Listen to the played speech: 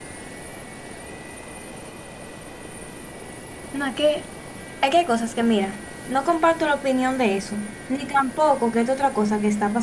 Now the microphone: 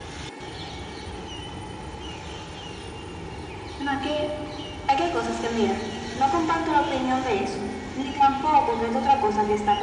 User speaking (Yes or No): No